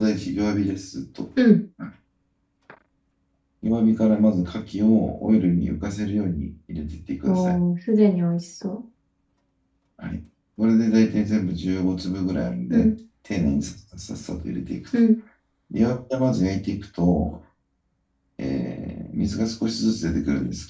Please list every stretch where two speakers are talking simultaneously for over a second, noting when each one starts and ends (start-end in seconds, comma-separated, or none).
none